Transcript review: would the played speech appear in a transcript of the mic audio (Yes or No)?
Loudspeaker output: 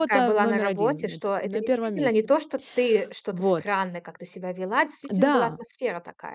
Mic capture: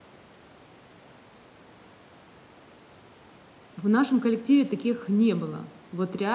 No